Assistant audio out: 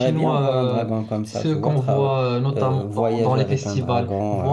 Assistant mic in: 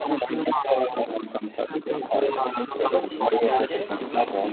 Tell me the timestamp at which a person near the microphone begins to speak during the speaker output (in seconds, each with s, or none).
2.8 s